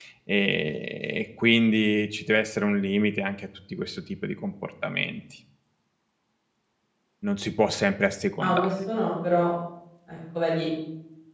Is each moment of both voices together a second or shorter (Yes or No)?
Yes